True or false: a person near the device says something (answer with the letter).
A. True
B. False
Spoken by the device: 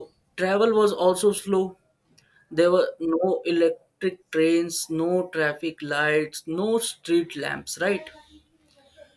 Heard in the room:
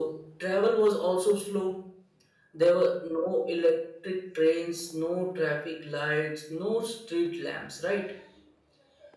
B